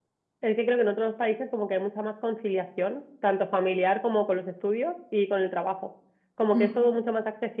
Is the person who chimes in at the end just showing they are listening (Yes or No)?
Yes